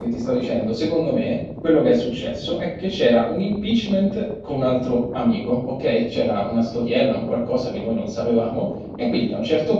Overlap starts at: none

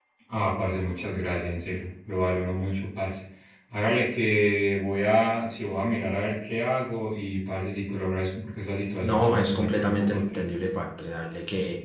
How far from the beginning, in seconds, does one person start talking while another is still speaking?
9.0 s

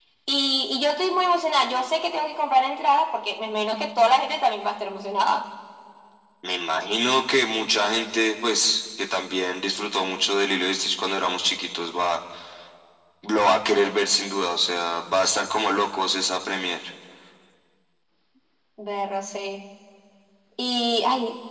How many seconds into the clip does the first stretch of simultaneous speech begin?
none

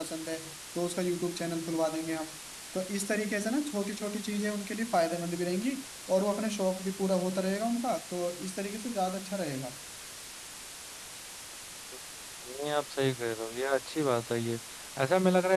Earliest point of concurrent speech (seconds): none

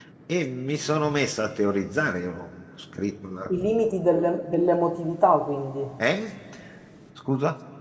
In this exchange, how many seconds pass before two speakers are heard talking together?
none

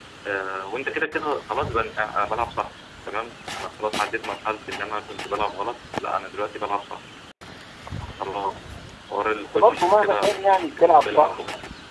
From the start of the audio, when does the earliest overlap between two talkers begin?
9.4 s

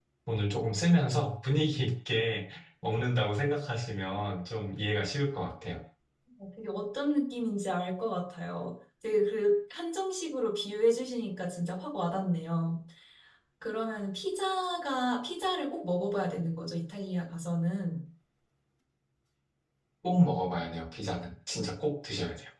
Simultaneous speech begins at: none

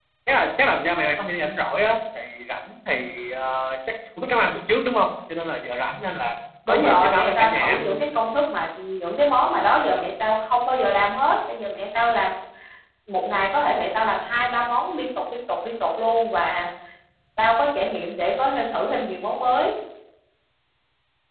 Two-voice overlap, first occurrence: 6.7 s

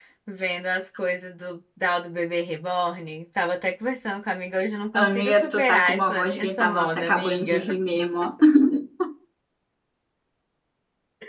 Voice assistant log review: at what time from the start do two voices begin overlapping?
4.9 s

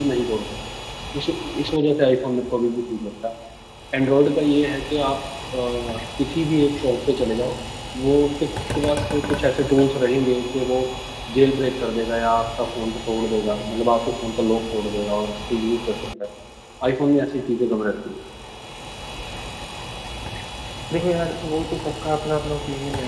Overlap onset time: none

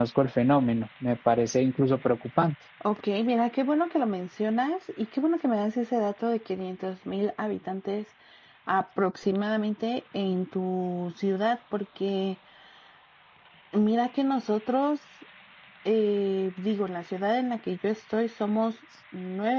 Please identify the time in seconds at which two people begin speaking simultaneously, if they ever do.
none

